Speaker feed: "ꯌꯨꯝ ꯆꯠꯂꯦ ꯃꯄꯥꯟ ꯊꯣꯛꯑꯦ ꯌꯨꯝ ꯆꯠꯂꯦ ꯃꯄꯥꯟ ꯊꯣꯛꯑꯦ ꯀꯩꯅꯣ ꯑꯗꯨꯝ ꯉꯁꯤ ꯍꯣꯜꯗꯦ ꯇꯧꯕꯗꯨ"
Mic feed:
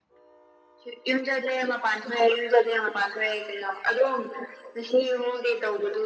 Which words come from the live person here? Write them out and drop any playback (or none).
none